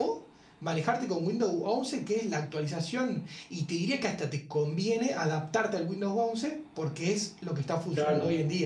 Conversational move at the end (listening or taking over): taking over